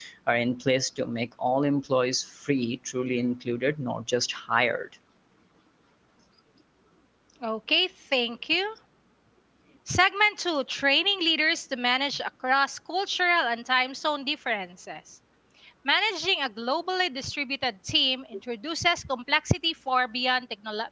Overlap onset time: none

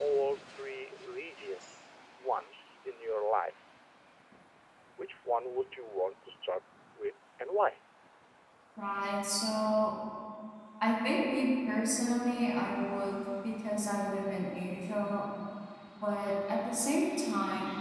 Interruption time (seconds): none

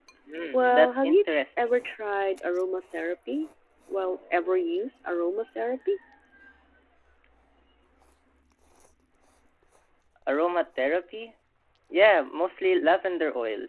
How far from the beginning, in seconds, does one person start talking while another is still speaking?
0.5 s

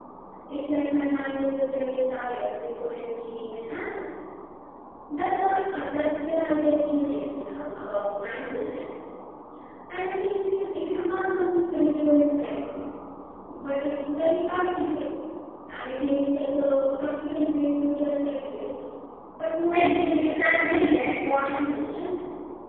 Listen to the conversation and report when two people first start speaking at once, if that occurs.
19.7 s

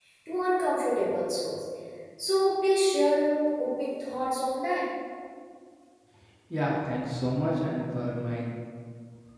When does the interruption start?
none

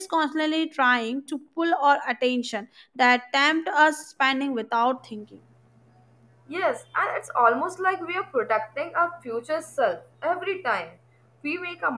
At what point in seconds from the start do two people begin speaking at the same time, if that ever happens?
none

